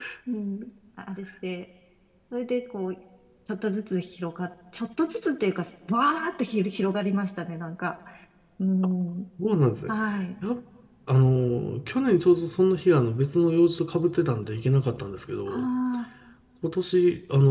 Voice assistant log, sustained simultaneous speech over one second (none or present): none